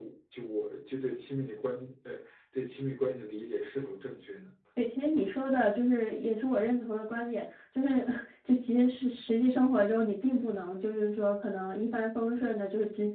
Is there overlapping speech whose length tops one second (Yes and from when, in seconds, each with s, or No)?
No